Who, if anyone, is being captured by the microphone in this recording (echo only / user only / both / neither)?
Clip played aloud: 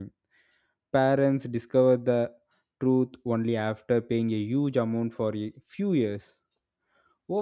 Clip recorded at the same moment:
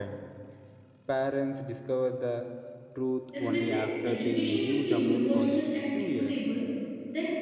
both